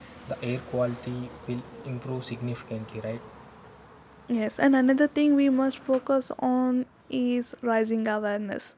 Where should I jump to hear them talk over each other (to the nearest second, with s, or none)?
none